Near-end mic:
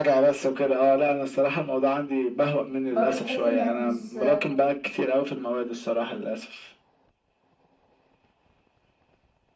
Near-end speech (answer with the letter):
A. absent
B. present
B